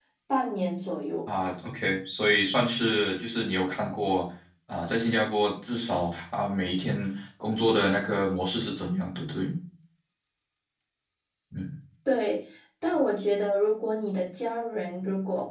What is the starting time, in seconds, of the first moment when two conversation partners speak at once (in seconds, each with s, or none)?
none